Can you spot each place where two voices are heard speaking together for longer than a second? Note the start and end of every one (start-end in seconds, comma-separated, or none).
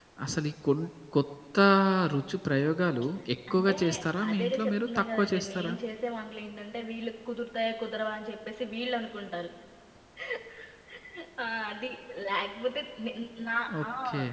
4.3-5.7